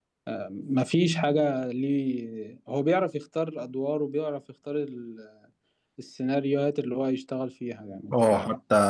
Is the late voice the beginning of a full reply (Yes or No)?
Yes